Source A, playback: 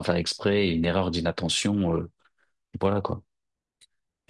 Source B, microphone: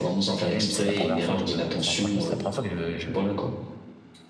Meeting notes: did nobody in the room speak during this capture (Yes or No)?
No